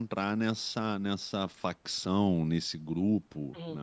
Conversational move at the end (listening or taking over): taking over